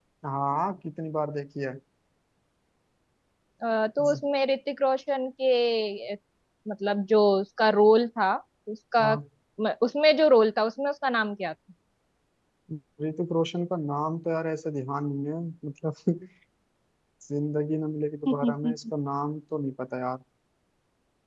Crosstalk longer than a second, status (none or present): none